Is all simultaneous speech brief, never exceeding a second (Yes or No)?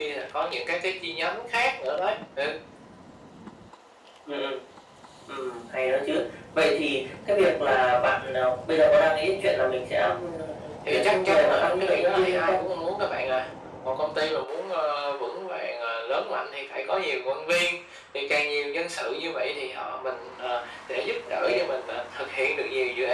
No